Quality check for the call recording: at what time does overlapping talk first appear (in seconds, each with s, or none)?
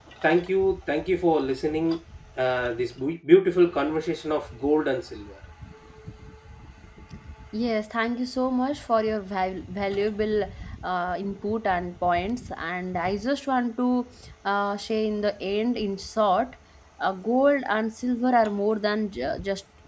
none